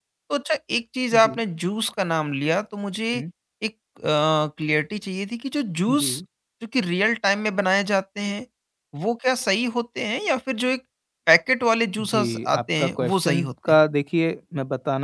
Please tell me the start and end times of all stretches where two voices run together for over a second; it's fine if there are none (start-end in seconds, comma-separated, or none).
12.0-13.8